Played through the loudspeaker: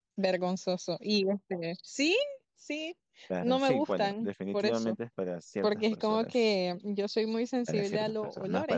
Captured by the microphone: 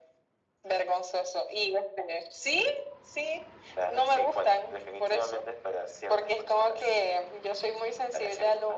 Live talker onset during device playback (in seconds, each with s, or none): none